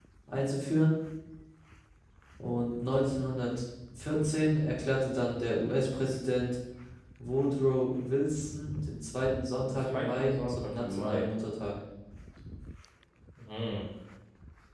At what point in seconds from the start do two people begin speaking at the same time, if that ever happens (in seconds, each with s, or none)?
9.6 s